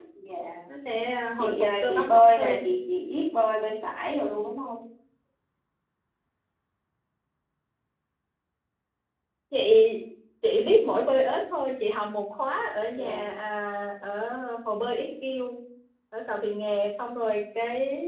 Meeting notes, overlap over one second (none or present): present